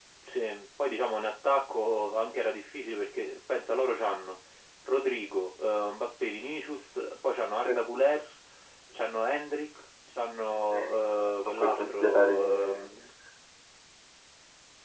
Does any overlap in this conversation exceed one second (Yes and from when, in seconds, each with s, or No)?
Yes, from 10.5 s